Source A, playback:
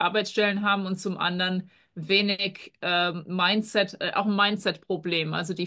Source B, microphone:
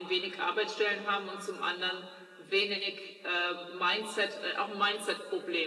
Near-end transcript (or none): none